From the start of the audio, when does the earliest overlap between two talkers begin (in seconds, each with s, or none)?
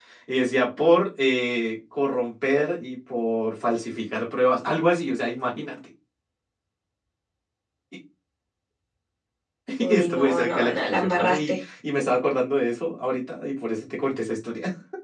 9.8 s